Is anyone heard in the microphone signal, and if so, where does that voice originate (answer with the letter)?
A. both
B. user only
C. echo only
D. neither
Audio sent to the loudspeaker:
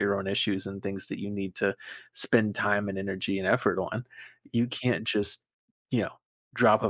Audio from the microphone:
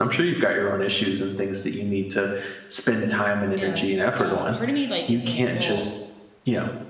A